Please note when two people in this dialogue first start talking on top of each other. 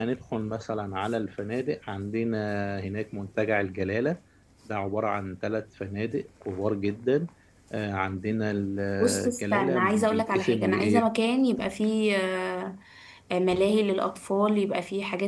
9 s

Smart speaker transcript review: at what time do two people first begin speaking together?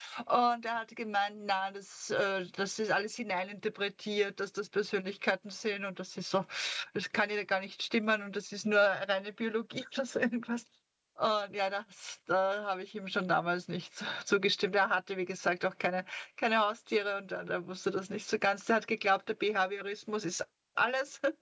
none

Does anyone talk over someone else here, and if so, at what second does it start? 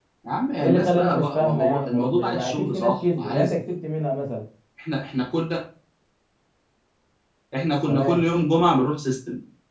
1 s

